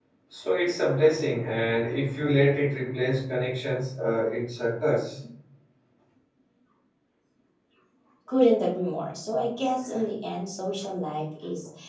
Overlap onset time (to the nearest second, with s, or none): none